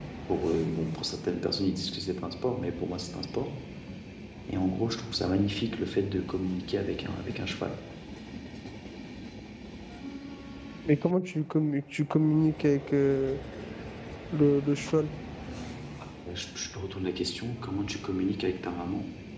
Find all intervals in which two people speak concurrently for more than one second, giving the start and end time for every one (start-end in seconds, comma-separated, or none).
none